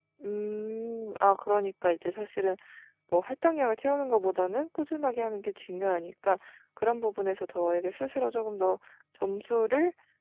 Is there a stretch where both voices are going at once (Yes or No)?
No